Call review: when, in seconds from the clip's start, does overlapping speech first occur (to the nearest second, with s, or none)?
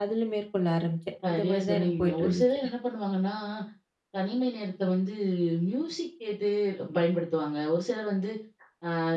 1 s